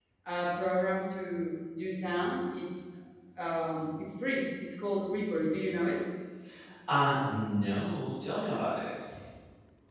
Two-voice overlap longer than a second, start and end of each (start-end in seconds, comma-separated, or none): none